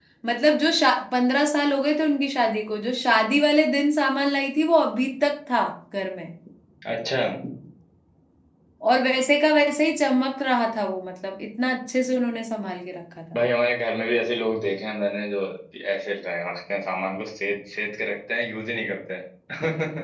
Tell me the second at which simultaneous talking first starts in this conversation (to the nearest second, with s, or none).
none